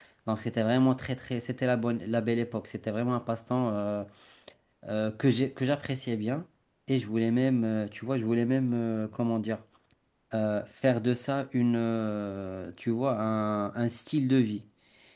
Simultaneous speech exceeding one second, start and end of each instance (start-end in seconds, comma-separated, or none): none